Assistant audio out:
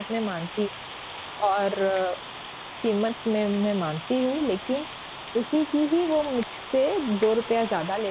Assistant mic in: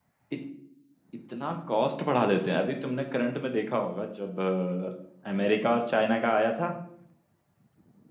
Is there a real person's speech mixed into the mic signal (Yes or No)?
Yes